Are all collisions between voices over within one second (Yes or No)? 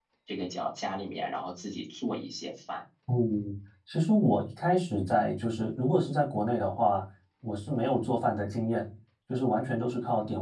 Yes